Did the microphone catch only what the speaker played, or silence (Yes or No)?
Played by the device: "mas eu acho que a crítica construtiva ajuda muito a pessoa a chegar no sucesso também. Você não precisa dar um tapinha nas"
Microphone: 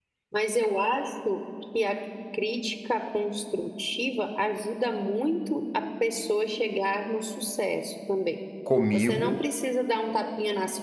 No